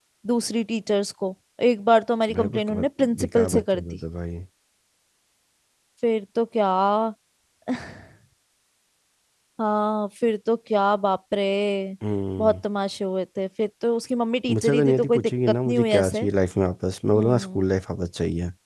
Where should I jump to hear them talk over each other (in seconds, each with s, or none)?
2.4 s